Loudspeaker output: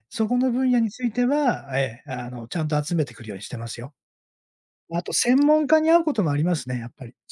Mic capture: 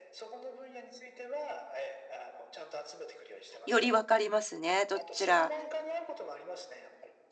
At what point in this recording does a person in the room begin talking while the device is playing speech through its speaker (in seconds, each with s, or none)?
3.6 s